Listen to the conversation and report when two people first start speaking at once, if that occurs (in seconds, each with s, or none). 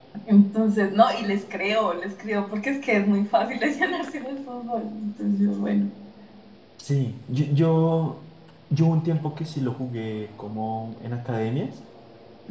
none